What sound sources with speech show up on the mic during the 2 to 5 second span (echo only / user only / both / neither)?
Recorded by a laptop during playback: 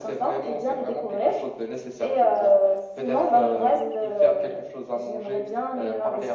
echo only